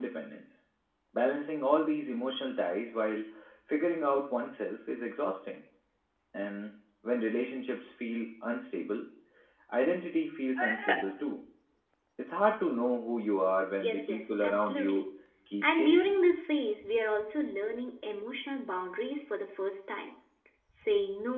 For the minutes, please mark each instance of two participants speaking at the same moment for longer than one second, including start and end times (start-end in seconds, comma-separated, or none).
13.8-15.0